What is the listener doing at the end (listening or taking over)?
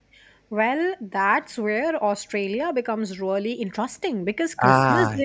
listening